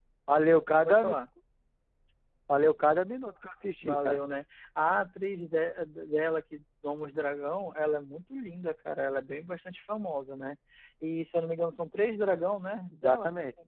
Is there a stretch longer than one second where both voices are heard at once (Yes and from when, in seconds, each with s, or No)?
No